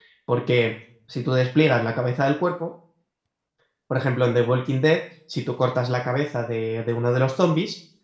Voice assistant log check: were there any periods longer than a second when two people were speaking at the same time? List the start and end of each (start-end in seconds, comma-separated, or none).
none